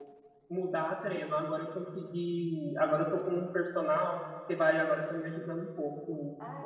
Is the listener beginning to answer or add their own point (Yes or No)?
Yes